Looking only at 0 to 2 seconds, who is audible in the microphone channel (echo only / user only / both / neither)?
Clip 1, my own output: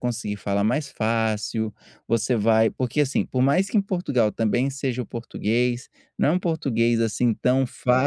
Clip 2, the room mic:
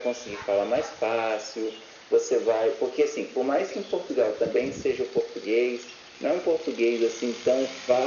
echo only